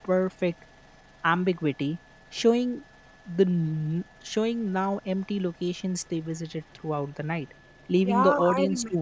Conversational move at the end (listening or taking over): taking over